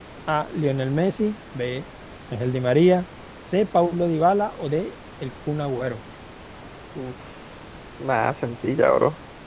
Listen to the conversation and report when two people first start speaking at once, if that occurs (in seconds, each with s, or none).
none